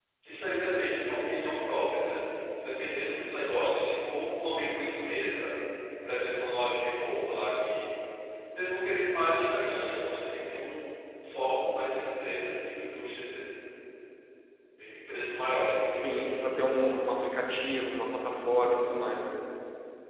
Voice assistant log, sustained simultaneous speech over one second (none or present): none